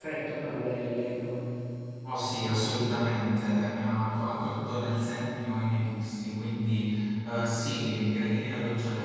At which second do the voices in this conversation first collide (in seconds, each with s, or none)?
none